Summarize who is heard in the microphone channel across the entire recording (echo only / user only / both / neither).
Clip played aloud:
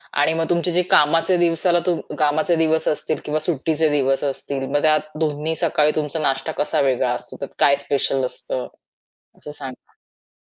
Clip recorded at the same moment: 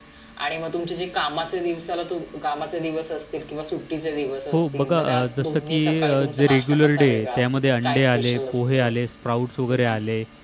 both